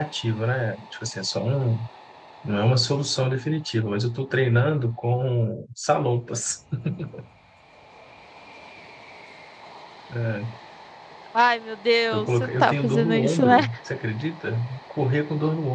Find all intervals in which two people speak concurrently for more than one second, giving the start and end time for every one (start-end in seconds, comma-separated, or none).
12.1-13.7